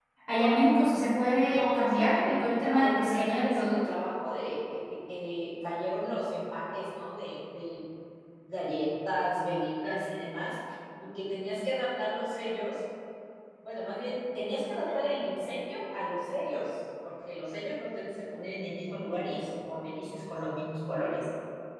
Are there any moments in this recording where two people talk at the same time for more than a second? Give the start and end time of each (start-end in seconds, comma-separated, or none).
1.5-3.8